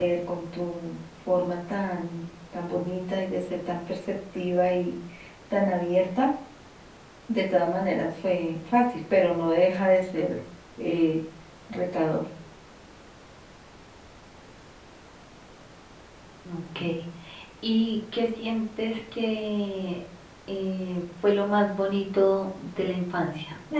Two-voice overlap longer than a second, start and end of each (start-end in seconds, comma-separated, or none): none